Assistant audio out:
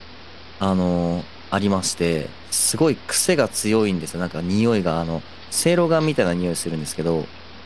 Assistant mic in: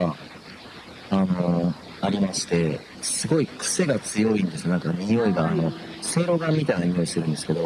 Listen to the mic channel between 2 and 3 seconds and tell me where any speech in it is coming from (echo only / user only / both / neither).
echo only